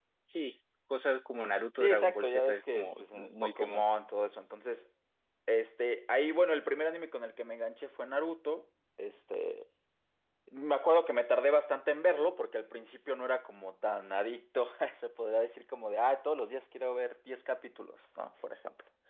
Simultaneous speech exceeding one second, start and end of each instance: 1.8-3.8

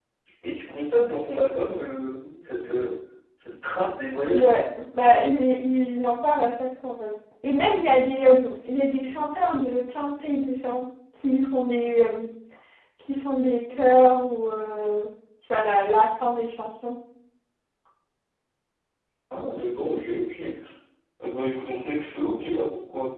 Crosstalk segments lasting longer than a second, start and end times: none

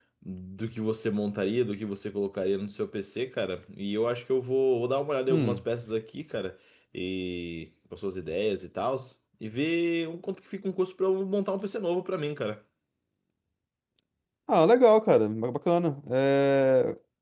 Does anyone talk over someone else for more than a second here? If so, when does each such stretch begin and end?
none

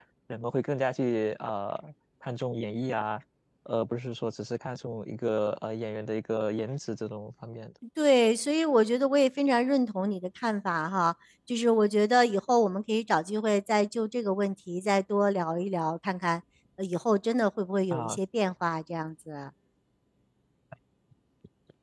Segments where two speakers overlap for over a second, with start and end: none

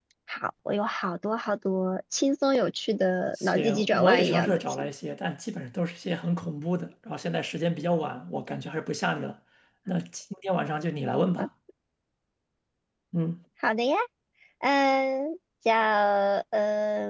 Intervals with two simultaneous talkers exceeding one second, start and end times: 3.4-4.9

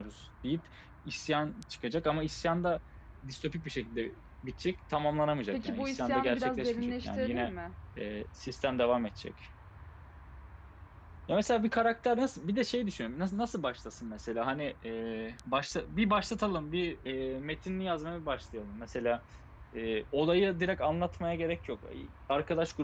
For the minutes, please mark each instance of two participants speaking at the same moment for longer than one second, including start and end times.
5.5-7.5

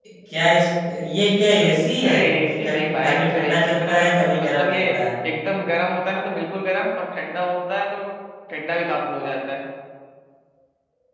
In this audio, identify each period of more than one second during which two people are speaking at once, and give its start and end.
2.0-4.8

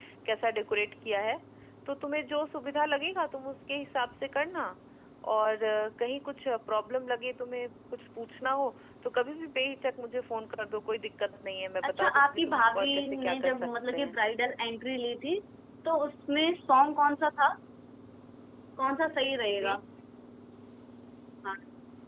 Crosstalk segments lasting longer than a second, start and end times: 11.8-14.2

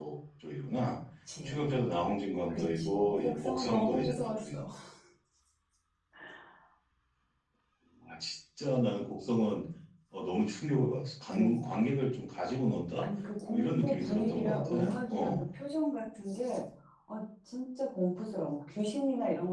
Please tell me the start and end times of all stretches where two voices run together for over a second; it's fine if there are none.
2.5-4.6, 13.5-15.4

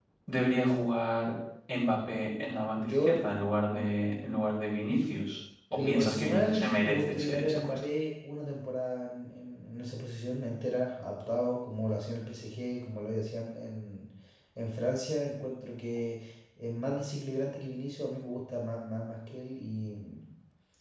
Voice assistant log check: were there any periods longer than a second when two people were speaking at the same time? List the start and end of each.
5.7-7.8

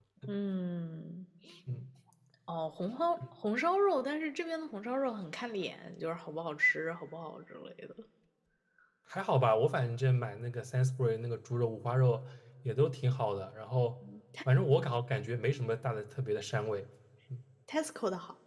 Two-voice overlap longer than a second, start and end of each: none

